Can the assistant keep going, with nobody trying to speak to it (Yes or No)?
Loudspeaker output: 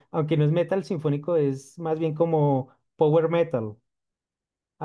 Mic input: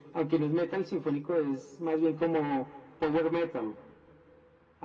Yes